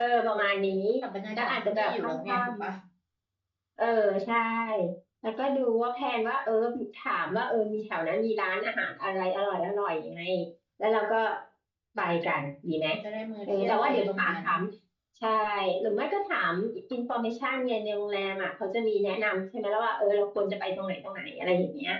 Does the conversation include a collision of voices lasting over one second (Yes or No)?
Yes